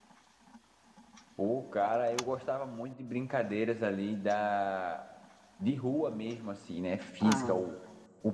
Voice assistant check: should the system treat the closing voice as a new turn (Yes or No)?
No